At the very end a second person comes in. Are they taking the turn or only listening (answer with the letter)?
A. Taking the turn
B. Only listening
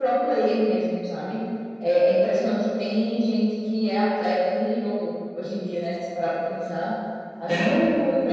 B